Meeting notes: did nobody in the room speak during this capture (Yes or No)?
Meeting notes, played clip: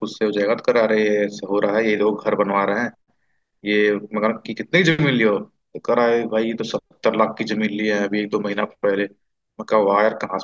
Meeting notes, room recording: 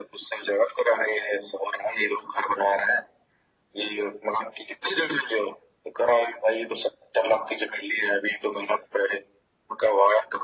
Yes